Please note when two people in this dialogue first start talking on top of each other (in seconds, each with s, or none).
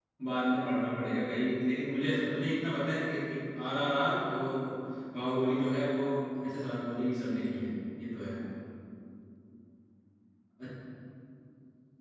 none